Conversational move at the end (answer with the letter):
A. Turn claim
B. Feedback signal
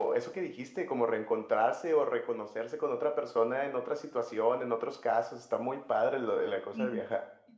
A